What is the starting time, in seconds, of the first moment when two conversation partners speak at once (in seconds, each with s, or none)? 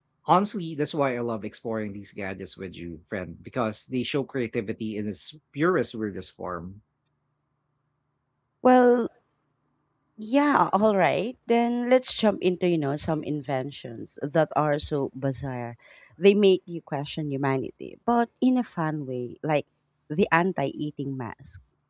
none